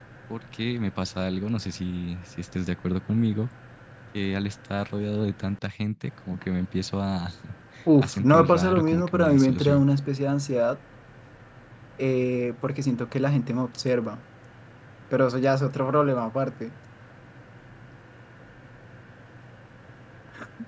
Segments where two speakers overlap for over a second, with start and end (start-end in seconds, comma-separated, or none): 8.0-9.8